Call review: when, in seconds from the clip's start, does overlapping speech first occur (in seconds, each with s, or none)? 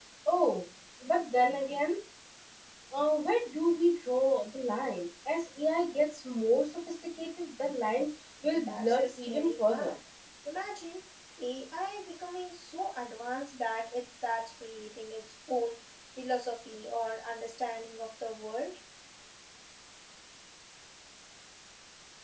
8.5 s